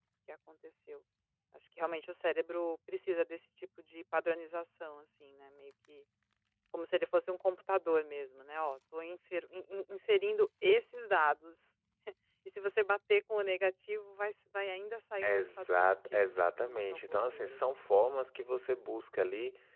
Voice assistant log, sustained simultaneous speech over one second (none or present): present